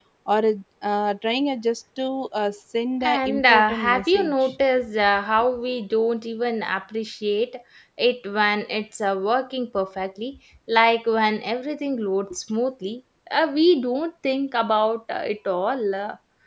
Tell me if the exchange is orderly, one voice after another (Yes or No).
No